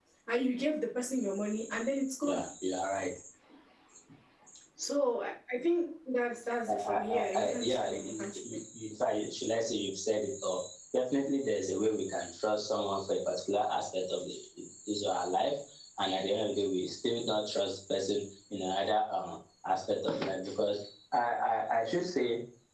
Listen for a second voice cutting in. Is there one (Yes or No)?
Yes